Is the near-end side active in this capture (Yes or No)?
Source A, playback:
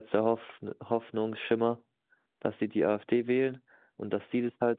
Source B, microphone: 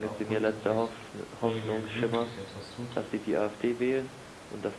Yes